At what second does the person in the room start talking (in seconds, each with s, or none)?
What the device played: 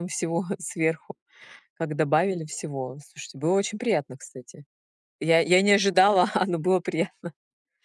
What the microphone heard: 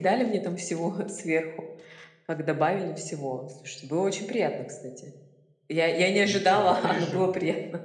6.2 s